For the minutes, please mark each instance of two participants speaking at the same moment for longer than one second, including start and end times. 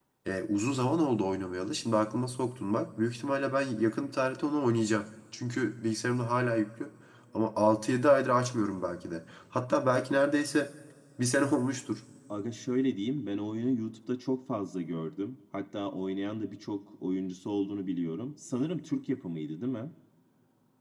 none

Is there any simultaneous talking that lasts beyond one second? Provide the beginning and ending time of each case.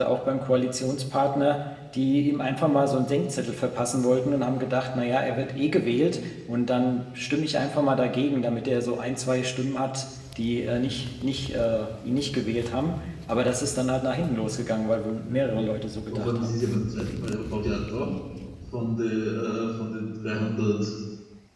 none

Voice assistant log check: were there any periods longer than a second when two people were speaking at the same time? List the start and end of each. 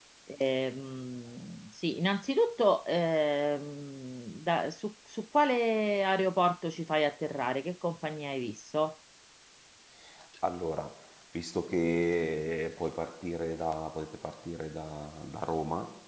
none

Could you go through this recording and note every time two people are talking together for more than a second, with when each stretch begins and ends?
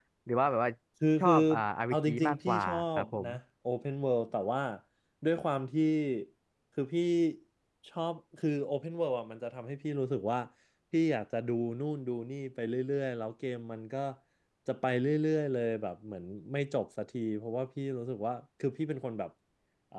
1.9-3.3

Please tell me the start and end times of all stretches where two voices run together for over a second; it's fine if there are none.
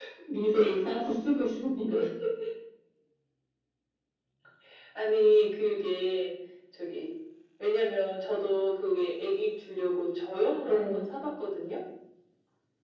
none

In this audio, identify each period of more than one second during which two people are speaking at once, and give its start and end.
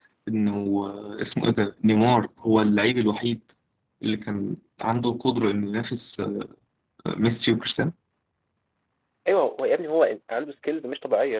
none

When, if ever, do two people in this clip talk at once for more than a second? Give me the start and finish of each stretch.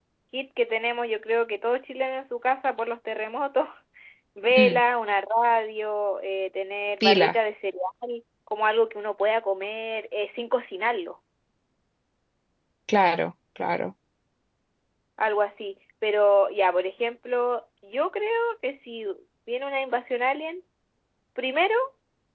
none

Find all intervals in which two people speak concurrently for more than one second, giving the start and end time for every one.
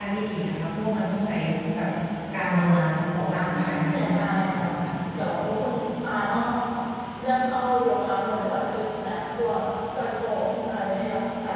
3.5-4.8

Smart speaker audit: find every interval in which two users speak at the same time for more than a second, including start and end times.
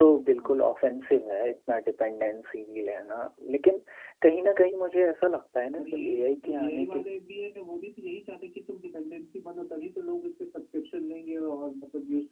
5.8-7.0

